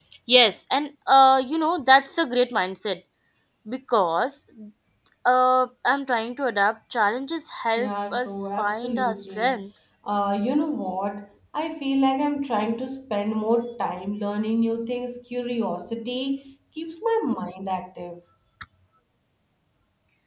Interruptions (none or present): present